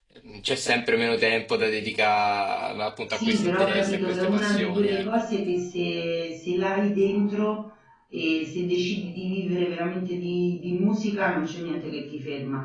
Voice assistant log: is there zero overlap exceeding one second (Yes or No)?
No